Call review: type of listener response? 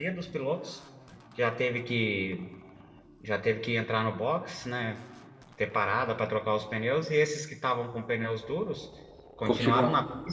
listening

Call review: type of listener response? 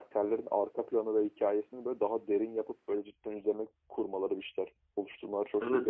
taking over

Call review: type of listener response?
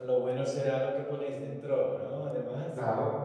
taking over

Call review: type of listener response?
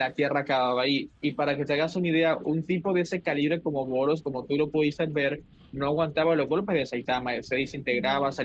listening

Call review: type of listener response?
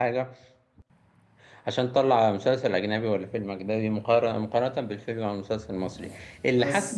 listening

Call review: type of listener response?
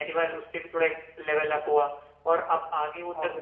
listening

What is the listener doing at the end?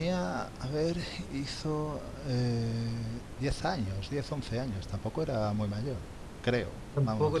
taking over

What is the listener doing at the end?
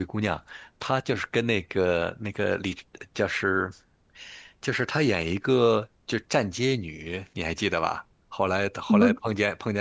listening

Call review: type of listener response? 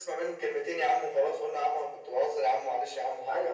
taking over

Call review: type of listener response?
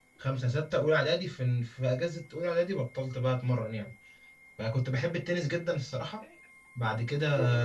listening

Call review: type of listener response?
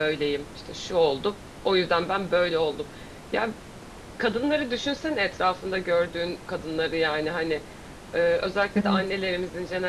listening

